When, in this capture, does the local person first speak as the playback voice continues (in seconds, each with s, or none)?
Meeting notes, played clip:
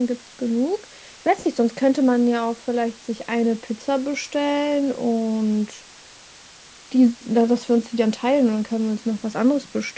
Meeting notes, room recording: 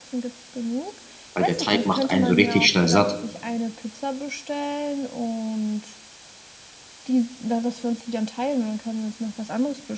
1.3 s